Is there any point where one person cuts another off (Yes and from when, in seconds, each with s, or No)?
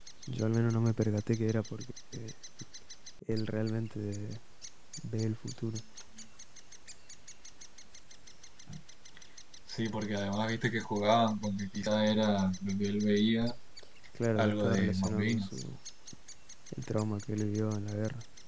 Yes, from 14.4 s